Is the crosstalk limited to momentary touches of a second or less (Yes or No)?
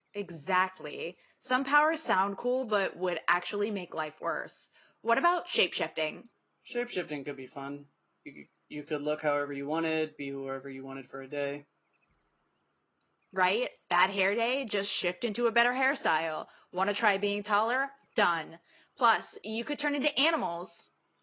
Yes